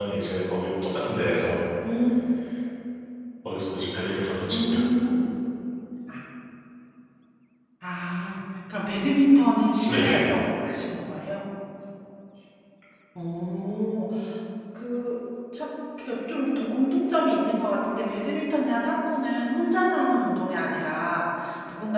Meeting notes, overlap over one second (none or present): none